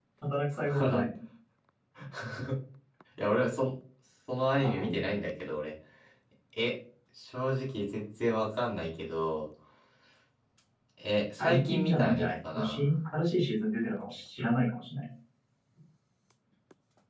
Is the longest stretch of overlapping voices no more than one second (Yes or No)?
No